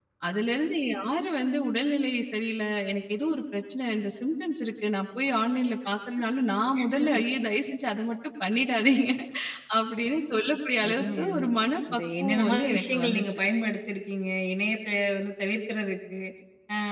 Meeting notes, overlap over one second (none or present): present